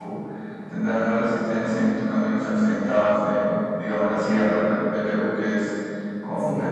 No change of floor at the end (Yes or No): Yes